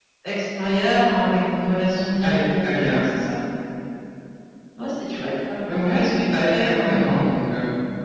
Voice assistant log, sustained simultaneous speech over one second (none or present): present